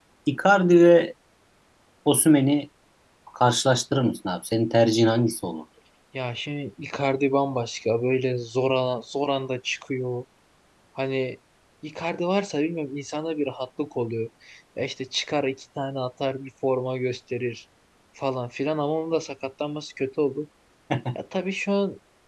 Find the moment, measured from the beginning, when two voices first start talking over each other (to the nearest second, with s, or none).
none